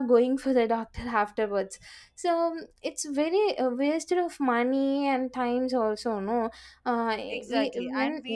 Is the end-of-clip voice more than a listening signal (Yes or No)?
Yes